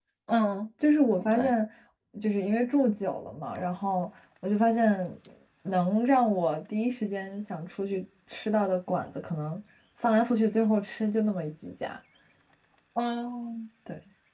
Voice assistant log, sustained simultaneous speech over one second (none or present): none